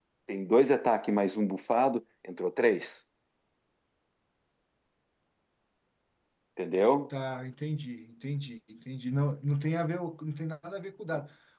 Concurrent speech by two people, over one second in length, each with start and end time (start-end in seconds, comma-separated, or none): none